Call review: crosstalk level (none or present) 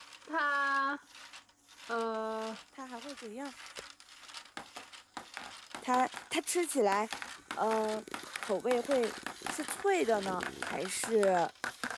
none